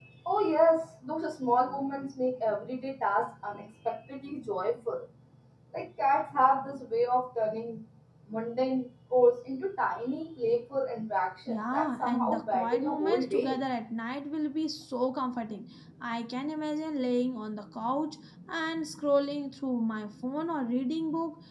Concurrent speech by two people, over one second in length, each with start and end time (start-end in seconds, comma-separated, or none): 11.5-13.6